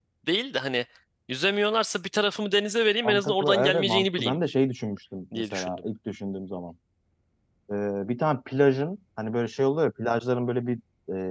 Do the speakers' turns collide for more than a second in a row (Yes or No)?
Yes